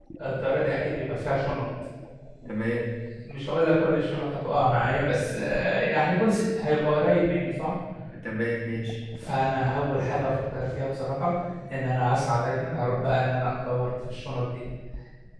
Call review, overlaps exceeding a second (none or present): none